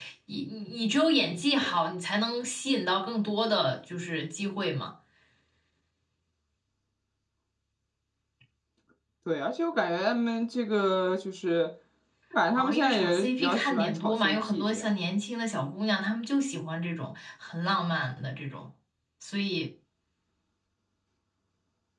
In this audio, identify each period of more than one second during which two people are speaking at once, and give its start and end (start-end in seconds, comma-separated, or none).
12.6-14.8